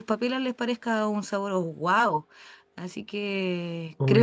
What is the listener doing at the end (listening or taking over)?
listening